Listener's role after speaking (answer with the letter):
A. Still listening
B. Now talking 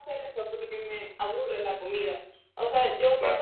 A